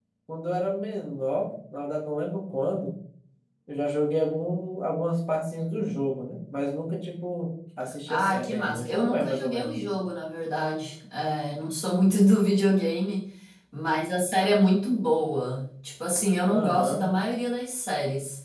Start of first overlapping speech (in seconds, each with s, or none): 8.1 s